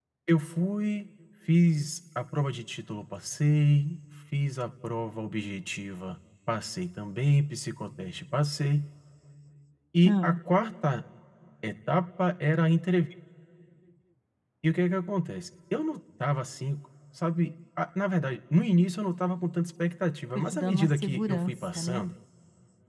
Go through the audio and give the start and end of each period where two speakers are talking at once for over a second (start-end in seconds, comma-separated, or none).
20.4-22.1